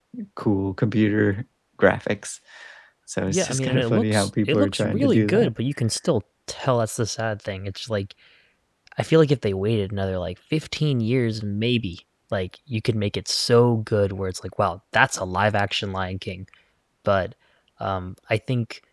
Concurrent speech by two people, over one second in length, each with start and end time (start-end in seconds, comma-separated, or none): 3.3-5.5